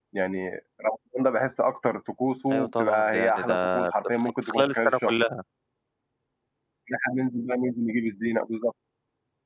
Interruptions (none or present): present